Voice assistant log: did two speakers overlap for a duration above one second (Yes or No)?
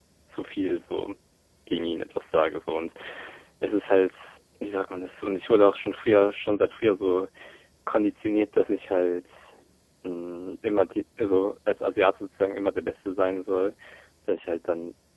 No